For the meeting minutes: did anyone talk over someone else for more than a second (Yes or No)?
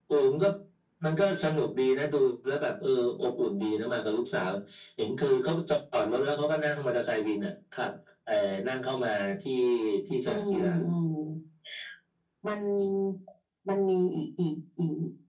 No